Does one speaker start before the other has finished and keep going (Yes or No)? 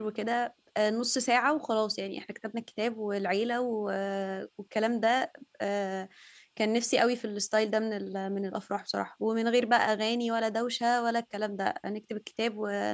No